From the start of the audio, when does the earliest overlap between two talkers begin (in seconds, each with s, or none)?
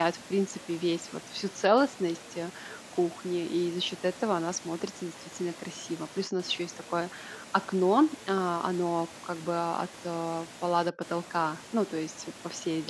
none